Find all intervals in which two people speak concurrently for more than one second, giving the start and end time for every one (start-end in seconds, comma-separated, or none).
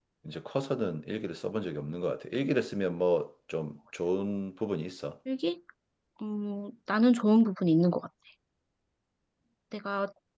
none